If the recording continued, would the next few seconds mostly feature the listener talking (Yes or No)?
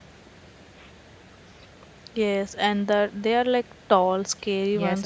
Yes